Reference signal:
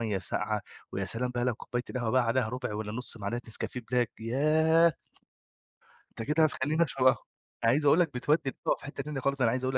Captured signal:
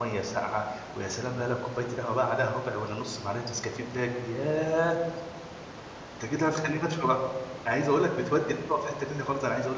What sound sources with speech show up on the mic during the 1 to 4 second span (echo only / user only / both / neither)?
echo only